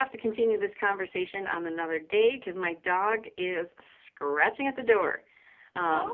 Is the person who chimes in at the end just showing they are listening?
No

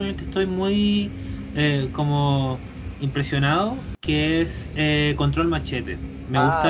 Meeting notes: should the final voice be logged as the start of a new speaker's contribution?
No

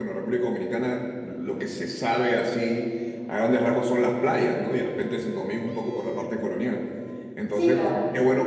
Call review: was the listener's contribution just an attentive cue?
Yes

